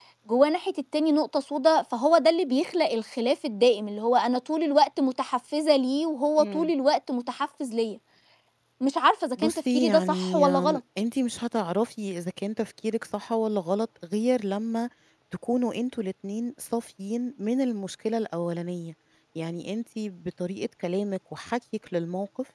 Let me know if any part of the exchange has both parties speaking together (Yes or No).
Yes